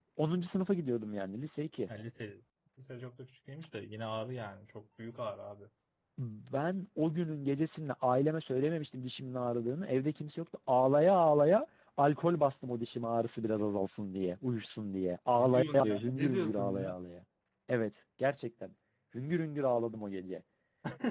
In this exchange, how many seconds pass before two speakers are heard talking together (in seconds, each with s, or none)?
15.3 s